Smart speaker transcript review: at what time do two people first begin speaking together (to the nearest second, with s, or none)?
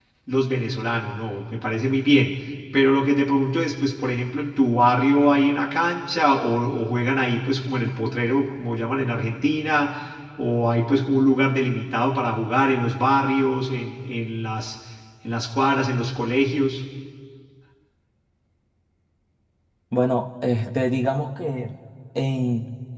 none